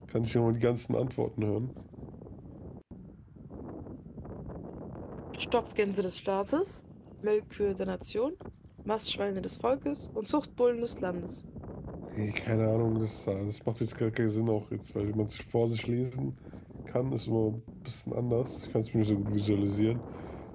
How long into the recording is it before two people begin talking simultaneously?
none

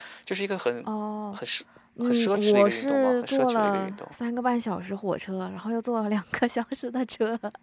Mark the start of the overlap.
2.0 s

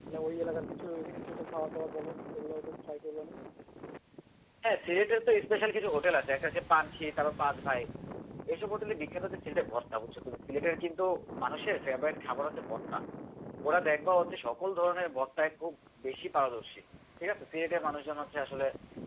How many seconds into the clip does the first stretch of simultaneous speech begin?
none

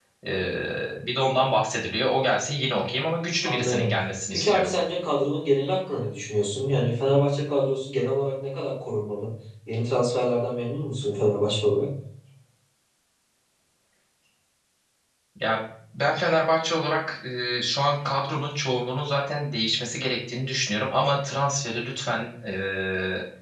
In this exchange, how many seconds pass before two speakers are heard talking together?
3.4 s

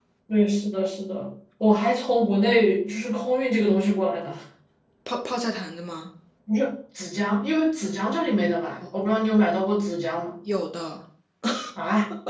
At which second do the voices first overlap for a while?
none

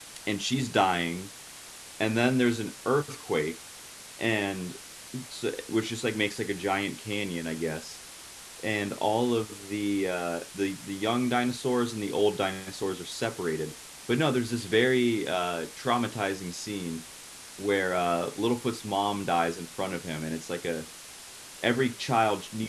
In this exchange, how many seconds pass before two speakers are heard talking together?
none

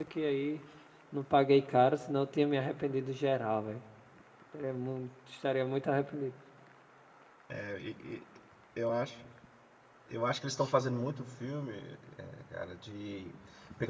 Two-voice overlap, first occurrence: none

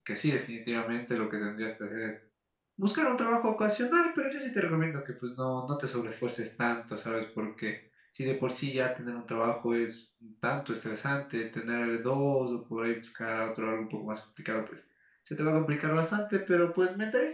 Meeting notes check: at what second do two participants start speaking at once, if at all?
none

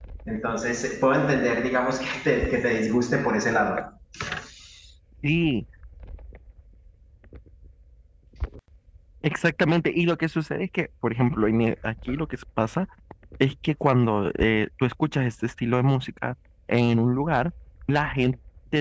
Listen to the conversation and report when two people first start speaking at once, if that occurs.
none

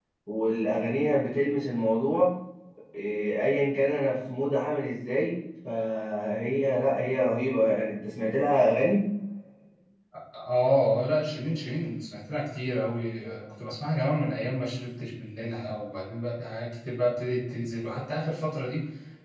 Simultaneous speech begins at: none

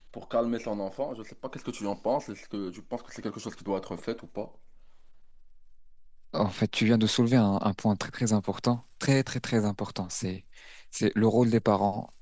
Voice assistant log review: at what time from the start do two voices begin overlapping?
none

